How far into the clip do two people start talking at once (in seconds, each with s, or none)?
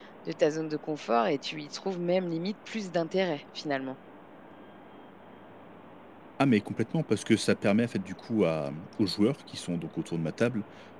none